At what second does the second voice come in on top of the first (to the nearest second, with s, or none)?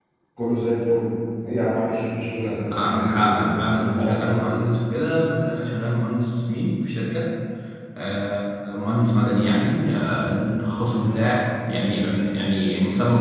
3 s